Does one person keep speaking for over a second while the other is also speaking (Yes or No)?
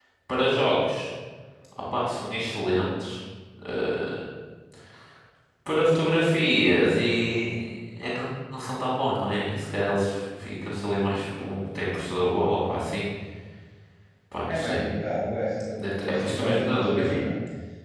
Yes